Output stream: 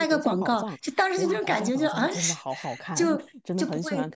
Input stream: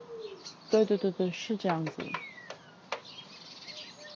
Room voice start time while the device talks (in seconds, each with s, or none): 0.7 s